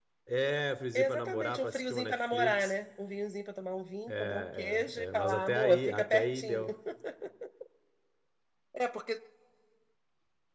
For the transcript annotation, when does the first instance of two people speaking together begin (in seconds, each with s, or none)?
1.0 s